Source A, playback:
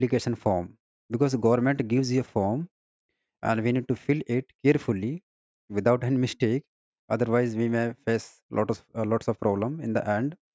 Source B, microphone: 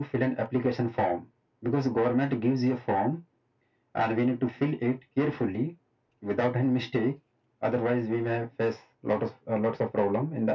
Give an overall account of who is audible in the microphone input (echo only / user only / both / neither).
echo only